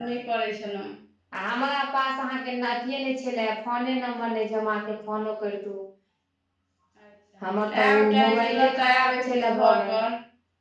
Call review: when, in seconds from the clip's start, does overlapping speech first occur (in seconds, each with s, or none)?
7.9 s